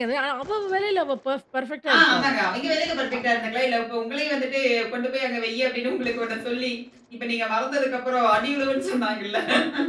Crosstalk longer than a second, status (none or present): none